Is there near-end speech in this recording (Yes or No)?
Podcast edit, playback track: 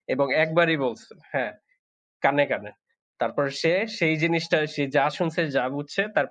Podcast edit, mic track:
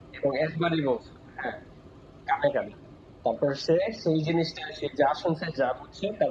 No